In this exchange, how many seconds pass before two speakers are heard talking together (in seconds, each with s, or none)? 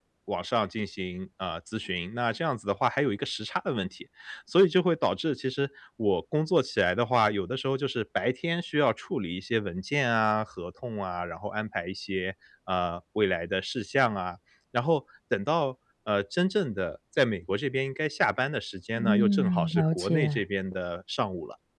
18.9 s